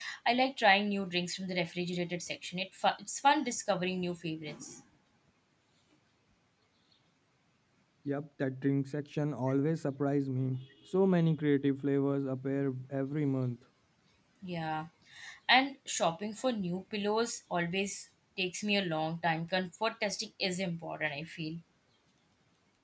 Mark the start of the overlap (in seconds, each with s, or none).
none